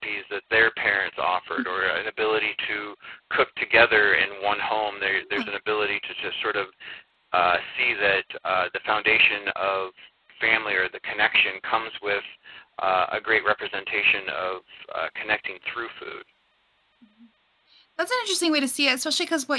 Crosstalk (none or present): none